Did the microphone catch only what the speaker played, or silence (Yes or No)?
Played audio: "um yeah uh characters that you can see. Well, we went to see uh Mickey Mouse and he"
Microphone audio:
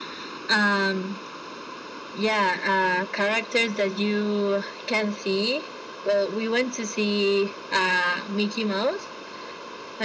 Yes